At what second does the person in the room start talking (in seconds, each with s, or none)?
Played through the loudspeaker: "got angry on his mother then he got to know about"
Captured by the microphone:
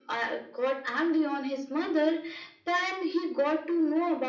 none